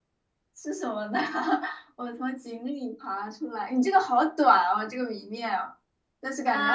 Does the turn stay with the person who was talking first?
No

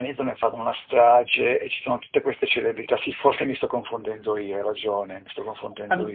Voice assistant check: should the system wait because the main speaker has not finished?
No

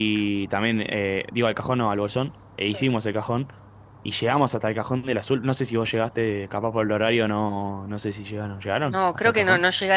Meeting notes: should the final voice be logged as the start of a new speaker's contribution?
Yes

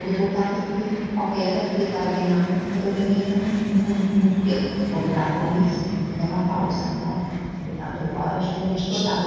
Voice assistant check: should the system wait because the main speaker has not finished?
Yes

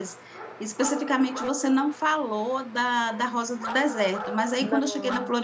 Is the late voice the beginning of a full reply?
No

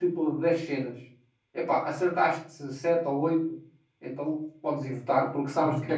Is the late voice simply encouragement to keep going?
No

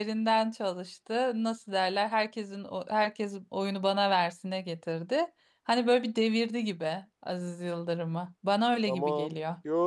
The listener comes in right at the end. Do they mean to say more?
Yes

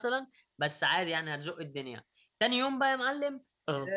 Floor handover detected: No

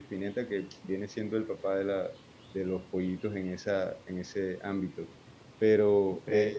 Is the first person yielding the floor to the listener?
No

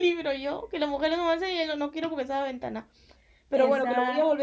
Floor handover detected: No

